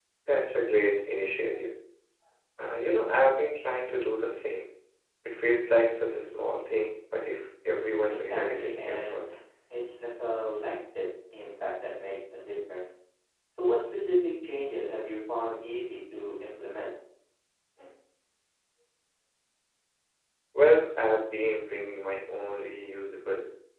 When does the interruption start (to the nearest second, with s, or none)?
8 s